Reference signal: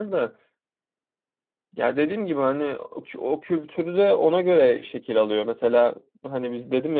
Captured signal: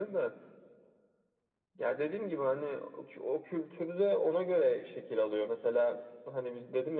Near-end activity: none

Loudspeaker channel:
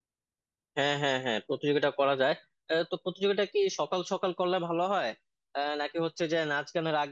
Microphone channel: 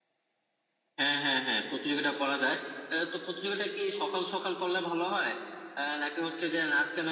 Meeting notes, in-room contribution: none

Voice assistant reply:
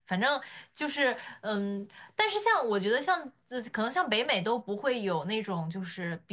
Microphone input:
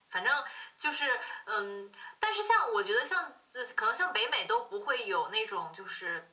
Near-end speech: none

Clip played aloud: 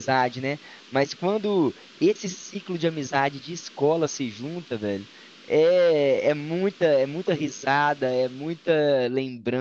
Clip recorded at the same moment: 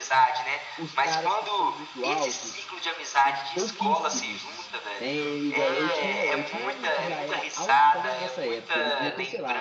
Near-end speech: present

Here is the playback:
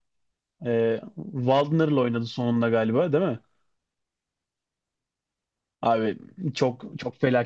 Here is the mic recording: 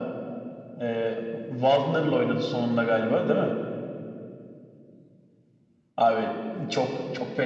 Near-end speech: none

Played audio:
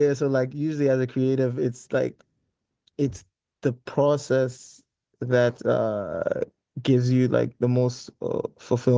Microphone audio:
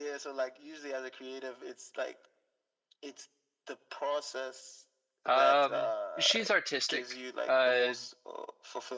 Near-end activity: present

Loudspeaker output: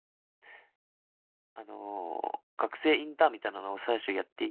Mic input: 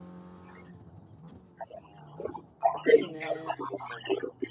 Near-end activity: present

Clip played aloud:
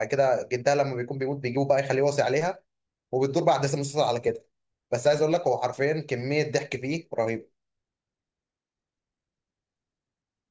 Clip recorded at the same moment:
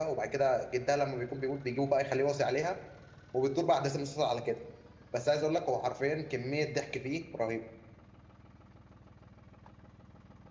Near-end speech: none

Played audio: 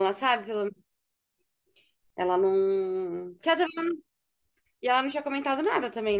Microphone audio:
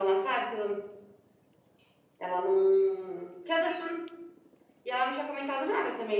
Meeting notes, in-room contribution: none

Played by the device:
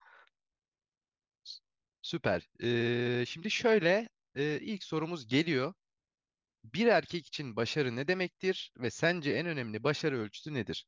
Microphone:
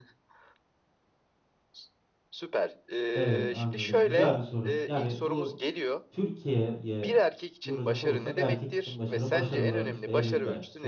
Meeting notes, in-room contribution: present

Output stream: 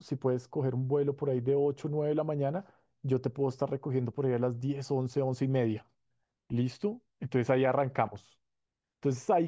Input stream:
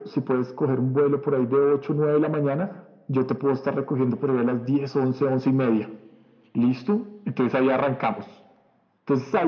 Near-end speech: none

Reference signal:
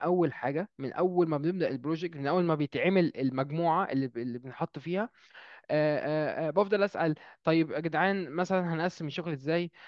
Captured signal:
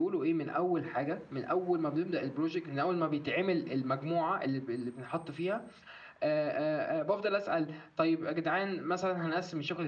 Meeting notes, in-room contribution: none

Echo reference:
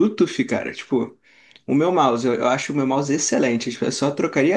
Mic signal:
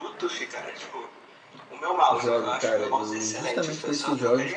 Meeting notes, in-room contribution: present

